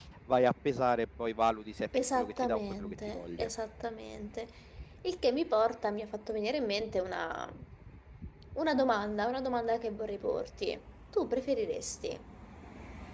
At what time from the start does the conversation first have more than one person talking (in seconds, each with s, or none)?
1.9 s